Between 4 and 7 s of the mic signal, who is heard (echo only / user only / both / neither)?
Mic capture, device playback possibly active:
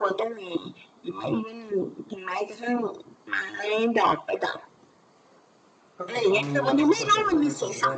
both